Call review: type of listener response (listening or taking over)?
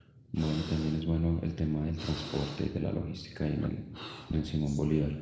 taking over